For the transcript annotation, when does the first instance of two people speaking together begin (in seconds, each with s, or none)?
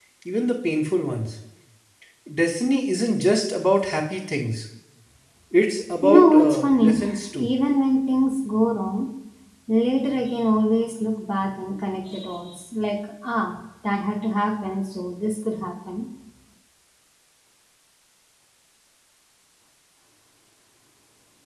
6.0 s